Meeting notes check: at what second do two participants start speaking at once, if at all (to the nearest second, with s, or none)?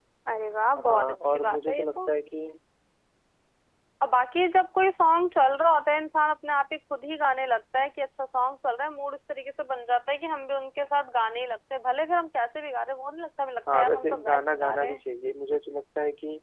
1 s